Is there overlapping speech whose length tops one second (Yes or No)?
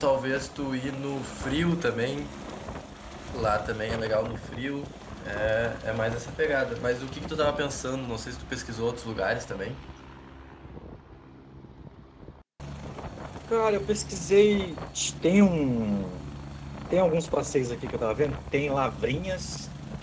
No